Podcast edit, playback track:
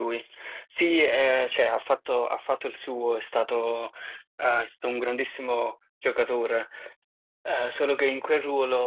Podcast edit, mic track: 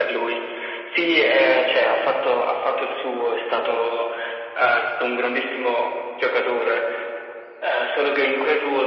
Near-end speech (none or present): none